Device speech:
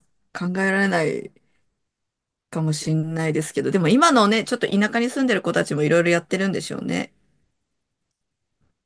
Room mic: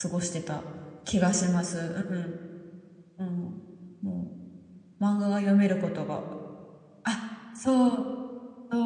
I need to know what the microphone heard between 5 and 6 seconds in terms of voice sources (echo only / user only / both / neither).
user only